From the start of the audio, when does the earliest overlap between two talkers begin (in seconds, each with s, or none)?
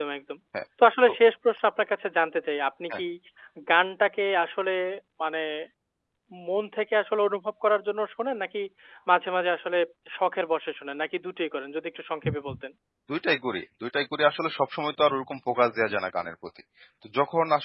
none